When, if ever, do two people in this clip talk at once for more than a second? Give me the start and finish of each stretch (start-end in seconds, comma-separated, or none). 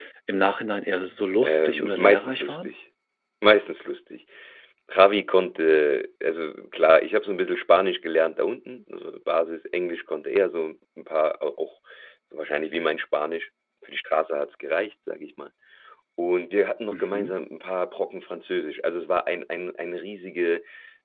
1.4-2.7